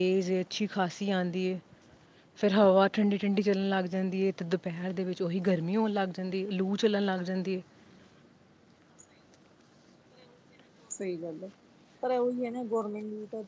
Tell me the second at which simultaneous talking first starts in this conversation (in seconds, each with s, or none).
none